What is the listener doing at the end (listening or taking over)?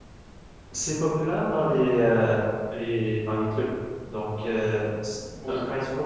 listening